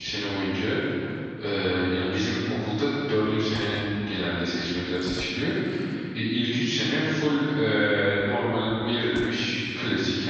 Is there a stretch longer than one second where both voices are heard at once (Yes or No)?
No